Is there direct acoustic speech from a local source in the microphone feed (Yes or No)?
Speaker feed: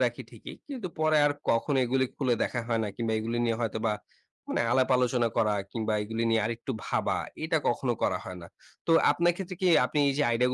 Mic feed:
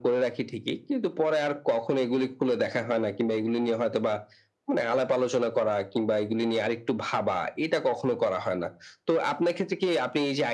No